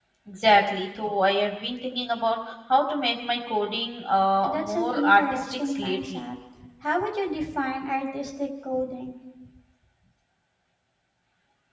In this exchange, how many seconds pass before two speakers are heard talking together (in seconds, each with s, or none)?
4.4 s